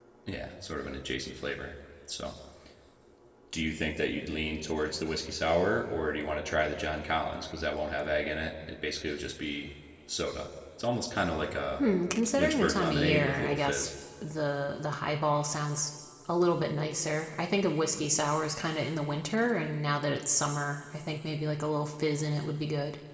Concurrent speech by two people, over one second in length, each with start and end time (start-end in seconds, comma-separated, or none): 12.3-13.9